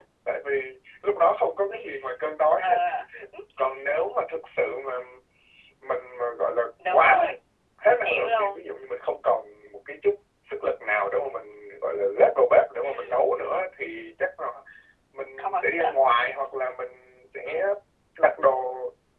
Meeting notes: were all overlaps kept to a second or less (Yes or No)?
Yes